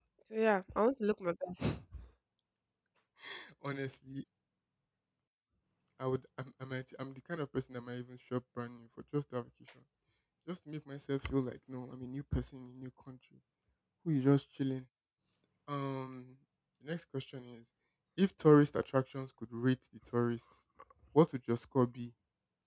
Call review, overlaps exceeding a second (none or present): none